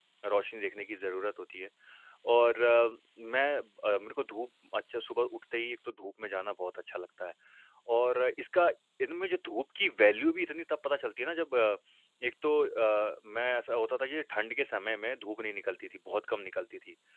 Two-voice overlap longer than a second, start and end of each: none

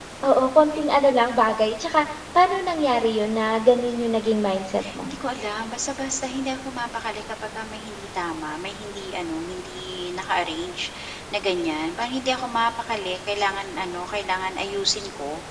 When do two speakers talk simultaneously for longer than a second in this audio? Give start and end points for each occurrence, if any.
none

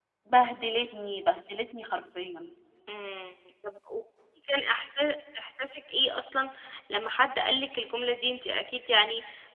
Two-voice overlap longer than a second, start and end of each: none

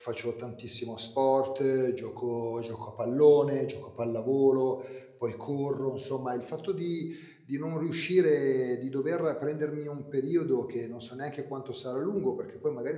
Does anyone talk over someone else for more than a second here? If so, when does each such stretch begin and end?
none

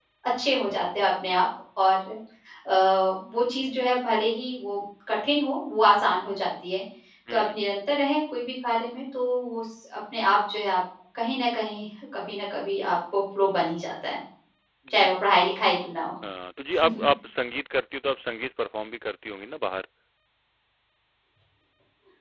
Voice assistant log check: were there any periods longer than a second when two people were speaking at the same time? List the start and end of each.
none

